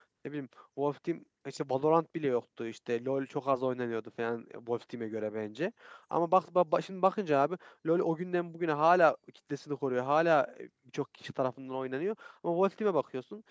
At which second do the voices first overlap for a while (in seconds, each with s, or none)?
none